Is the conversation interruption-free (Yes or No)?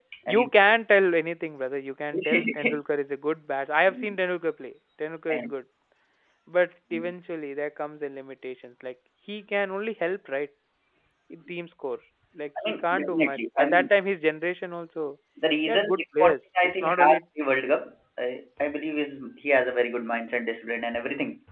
No